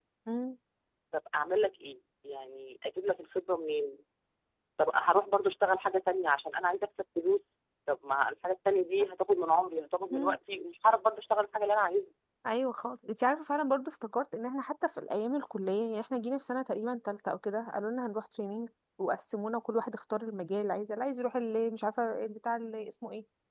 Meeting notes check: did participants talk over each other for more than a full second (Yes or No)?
No